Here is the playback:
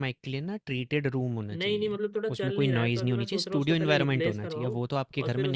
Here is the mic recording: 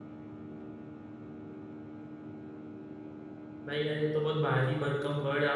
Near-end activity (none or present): present